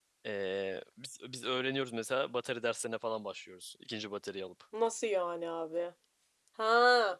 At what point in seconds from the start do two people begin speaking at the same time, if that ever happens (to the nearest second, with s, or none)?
none